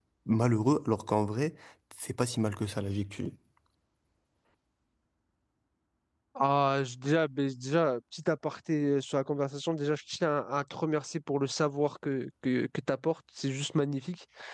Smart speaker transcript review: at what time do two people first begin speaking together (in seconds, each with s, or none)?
none